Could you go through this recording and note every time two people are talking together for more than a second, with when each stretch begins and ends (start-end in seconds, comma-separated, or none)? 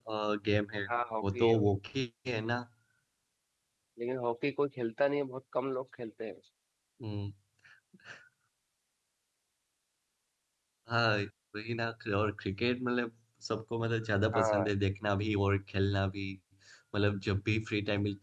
none